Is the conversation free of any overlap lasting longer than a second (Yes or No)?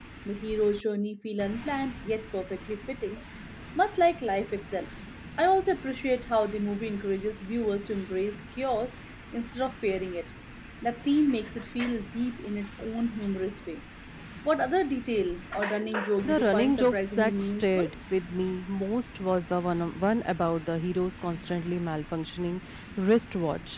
No